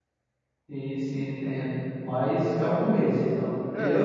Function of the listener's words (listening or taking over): taking over